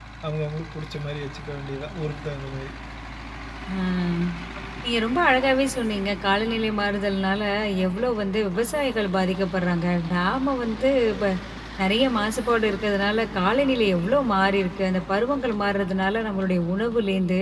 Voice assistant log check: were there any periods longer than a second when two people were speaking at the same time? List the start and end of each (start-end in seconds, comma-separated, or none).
none